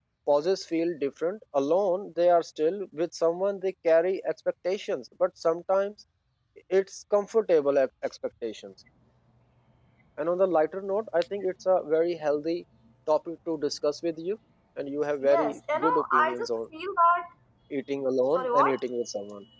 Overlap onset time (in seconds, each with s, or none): 15.2 s